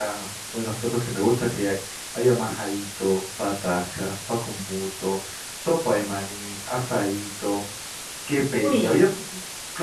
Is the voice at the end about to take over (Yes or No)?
No